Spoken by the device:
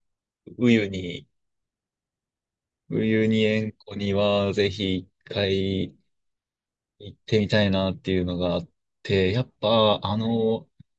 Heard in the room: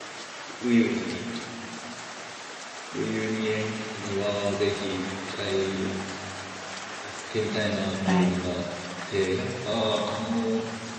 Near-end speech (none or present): present